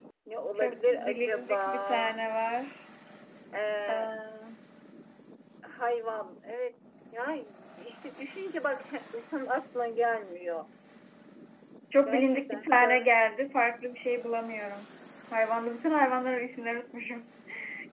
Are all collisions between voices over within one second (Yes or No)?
No